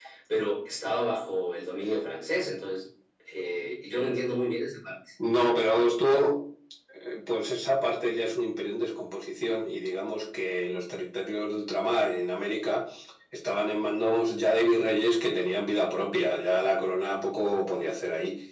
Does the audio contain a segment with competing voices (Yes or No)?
No